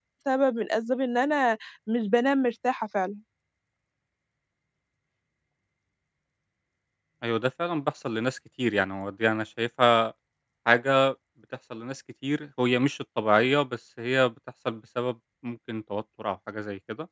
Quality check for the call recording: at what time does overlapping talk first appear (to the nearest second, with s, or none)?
none